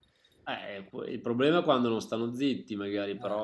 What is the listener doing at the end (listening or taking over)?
listening